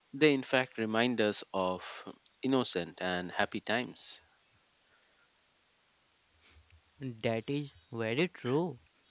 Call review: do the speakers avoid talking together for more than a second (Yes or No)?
Yes